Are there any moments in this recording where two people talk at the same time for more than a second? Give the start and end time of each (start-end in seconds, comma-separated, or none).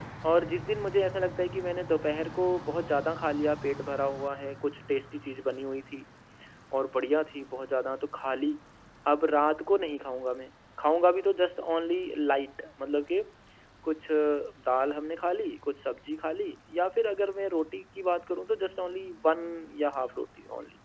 none